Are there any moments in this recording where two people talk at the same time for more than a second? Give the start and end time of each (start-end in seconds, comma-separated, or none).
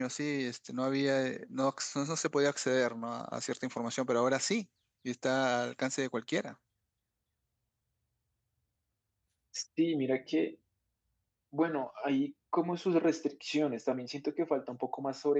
none